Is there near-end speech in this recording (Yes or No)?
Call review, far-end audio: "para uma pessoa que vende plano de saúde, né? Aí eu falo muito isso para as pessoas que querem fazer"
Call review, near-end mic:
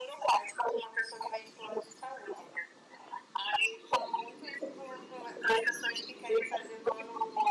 No